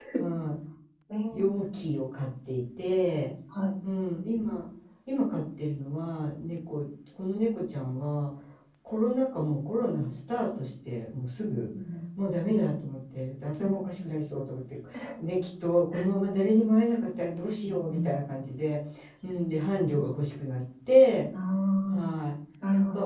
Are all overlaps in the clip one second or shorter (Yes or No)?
Yes